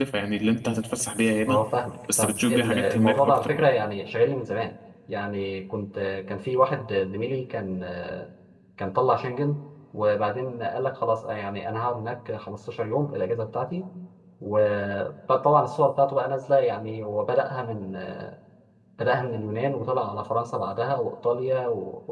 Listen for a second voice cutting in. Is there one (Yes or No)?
Yes